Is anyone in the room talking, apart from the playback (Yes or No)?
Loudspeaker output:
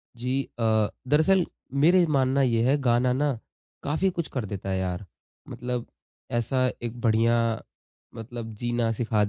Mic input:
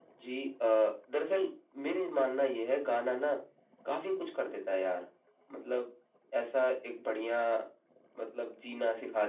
No